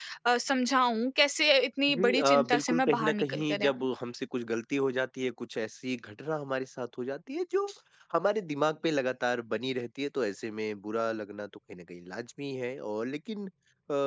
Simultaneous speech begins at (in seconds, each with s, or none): 1.9 s